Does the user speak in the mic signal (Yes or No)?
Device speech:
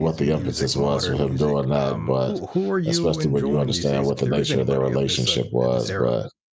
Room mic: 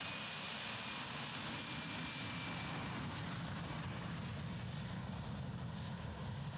No